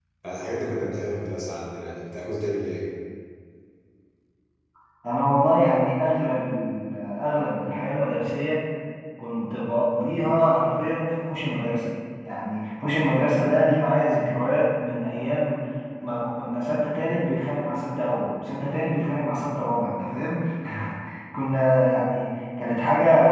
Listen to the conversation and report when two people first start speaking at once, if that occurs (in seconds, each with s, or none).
none